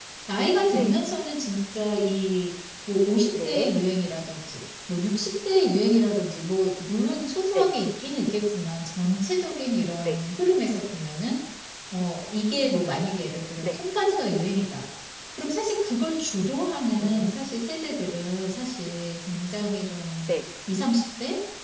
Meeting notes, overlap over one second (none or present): none